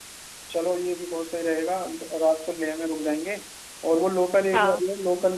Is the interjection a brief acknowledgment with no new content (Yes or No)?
Yes